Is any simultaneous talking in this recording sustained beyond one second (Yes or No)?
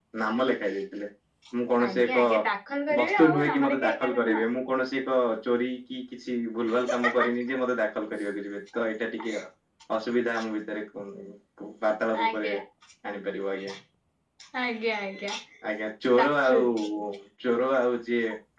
Yes